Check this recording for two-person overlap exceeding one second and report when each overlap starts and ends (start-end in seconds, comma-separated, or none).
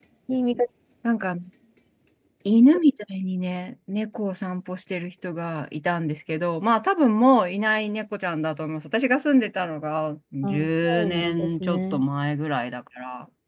10.4-12.0